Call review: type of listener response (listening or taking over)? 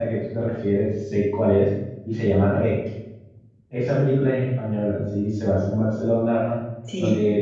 listening